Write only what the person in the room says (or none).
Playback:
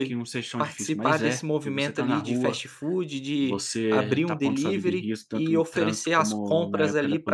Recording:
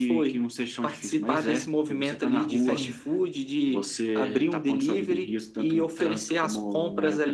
sim.